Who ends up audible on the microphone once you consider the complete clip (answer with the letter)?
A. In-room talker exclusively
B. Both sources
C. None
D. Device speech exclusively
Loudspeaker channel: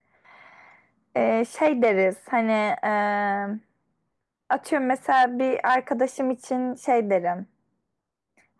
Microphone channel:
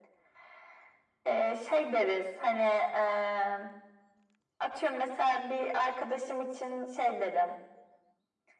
D